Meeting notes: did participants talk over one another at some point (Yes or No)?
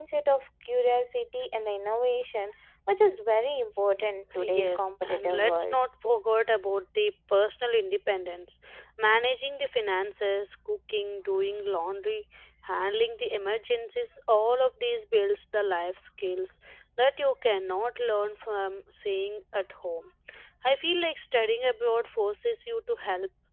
Yes